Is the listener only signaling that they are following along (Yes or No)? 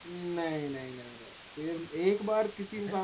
Yes